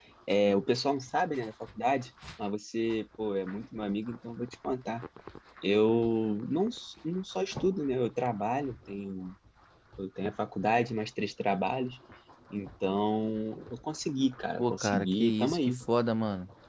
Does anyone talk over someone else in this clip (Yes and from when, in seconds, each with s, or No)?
Yes, from 14.6 s